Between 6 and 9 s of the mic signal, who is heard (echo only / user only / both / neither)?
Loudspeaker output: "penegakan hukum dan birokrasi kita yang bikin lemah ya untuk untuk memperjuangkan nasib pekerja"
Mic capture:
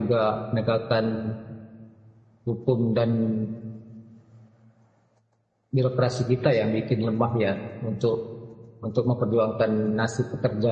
echo only